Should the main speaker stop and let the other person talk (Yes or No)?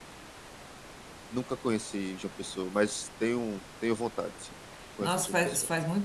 Yes